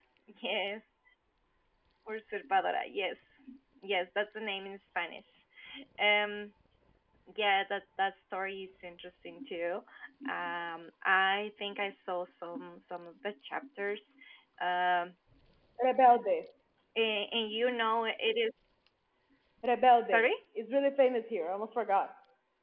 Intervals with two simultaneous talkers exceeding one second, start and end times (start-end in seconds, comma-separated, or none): none